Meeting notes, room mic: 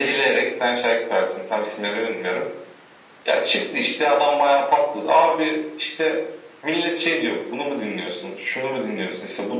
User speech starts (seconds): none

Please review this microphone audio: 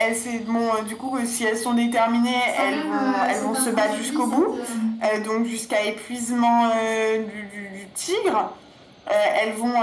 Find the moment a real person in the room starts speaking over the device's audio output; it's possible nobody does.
2.5 s

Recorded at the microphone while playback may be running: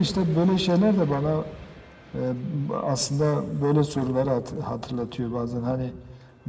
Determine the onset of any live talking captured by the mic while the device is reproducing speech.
none

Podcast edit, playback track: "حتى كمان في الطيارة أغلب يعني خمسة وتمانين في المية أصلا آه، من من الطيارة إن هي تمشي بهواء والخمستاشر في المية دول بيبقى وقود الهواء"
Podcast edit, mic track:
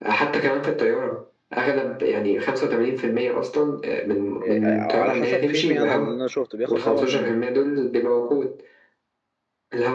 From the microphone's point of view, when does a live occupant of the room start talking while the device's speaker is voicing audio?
4.4 s

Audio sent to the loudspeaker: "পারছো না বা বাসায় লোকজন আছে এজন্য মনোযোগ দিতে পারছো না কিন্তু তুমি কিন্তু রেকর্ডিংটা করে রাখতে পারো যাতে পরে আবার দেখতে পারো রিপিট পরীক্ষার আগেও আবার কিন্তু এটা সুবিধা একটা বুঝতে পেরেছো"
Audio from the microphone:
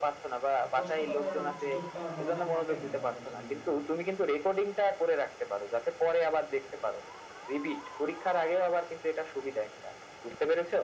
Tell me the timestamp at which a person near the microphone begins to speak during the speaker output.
0.6 s

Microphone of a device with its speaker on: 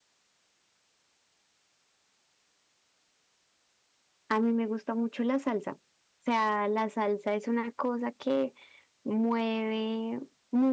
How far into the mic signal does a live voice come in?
4.3 s

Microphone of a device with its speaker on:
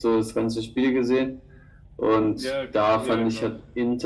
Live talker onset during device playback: 2.3 s

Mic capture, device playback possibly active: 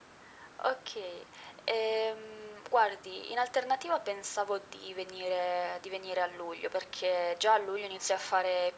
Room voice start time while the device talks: none

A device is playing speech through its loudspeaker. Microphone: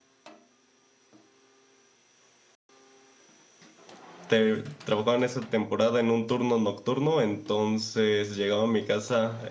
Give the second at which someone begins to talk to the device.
4.3 s

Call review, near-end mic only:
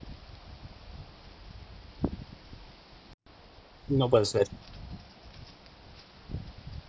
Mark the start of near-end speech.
3.9 s

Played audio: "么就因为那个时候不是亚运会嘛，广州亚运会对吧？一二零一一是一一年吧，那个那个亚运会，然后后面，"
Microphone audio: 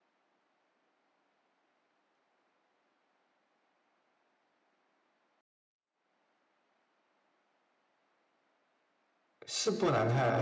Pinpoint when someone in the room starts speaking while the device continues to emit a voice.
9.5 s

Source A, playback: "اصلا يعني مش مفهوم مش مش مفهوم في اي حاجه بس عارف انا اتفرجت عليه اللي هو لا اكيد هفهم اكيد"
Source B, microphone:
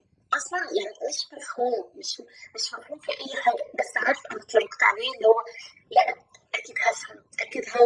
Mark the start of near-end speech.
none

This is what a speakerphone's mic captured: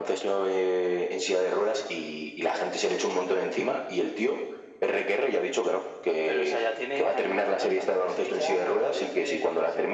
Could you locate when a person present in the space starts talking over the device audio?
none

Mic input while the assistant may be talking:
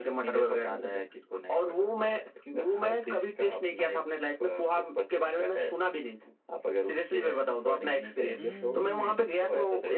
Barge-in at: 8.4 s

